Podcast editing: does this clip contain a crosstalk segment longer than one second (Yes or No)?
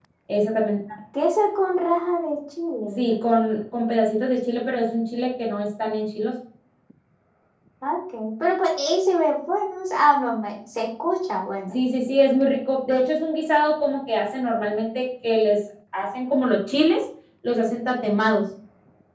No